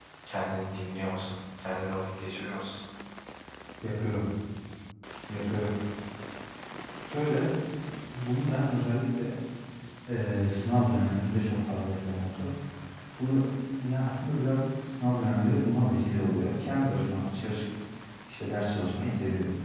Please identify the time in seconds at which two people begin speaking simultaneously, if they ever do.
none

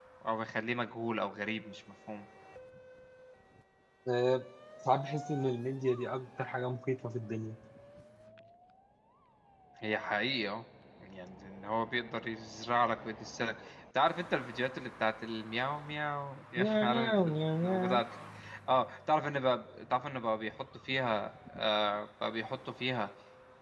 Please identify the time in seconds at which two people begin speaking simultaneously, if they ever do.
16.6 s

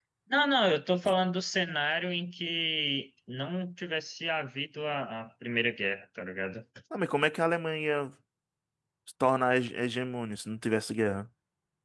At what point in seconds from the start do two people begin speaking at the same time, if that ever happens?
none

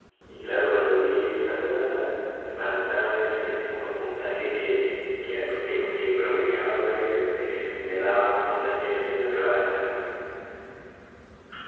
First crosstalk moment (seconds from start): none

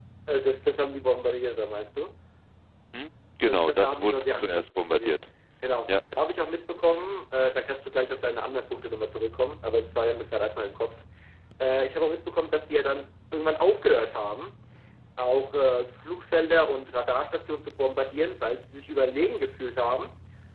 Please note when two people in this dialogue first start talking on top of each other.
3.5 s

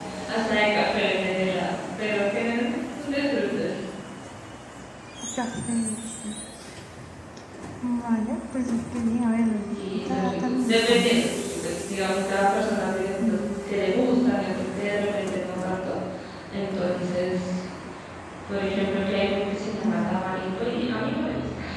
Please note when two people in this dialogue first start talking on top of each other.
9.9 s

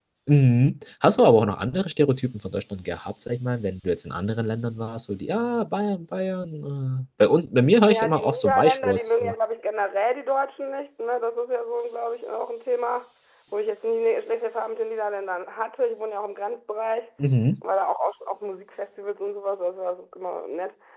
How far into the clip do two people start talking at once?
7.9 s

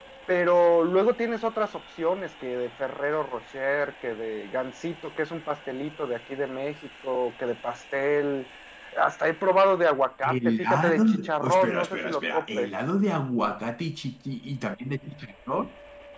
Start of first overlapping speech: 10.2 s

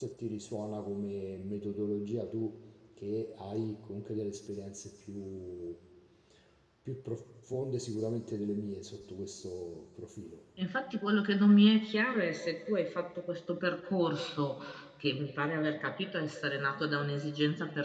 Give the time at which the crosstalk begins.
none

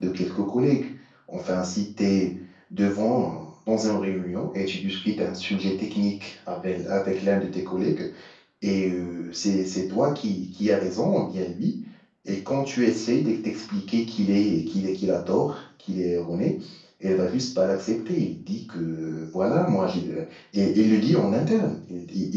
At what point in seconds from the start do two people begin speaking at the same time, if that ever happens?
none

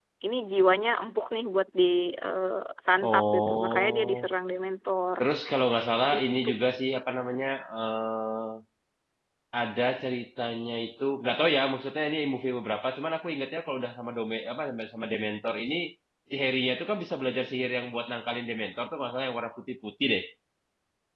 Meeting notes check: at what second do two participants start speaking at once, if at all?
3.0 s

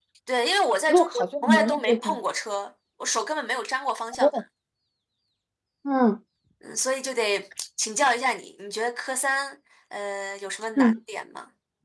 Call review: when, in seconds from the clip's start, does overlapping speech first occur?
0.9 s

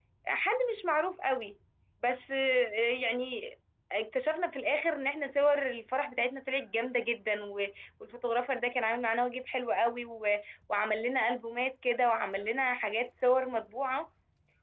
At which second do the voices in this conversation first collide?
none

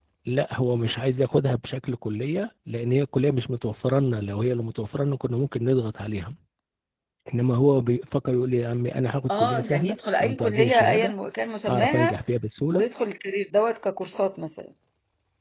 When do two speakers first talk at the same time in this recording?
9.3 s

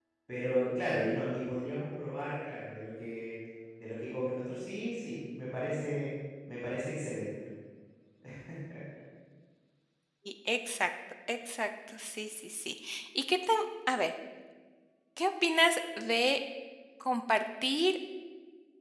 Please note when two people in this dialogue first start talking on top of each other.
none

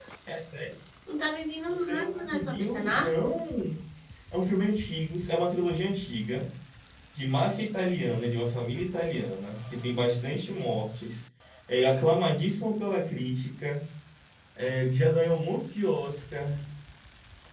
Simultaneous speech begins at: 1.7 s

